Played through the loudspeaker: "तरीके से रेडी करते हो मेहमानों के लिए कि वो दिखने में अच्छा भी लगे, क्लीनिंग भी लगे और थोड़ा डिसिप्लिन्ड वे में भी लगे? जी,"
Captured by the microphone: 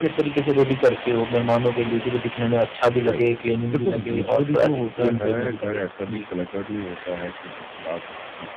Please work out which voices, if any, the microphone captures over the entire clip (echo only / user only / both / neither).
both